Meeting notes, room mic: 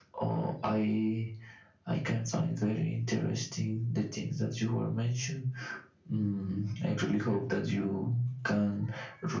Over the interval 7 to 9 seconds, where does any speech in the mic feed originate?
echo only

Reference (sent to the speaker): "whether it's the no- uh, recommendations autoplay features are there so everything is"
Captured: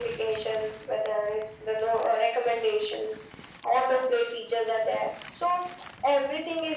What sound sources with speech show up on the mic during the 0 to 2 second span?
echo only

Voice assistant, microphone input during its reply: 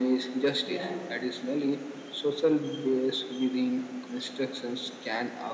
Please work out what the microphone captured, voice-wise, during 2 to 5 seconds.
echo only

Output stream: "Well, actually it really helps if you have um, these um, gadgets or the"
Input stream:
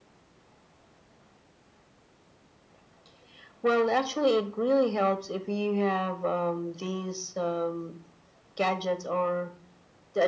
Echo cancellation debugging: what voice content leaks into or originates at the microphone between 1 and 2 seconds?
neither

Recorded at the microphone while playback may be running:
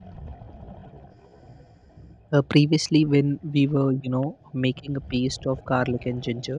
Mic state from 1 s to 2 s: neither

